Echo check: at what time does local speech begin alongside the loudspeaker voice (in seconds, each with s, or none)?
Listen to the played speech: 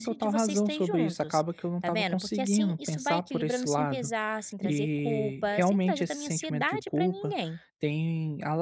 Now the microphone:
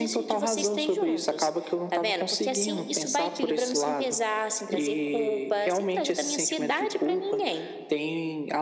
none